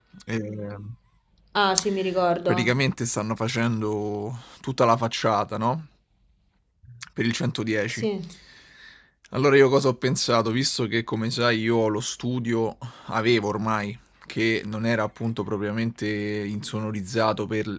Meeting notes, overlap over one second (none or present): none